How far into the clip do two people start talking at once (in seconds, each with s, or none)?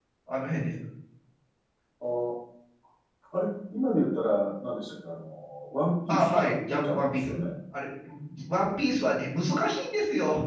6.1 s